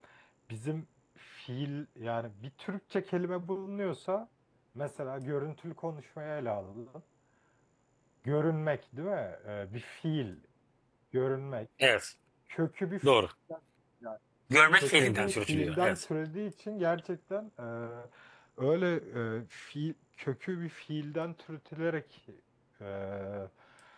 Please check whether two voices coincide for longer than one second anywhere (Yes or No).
Yes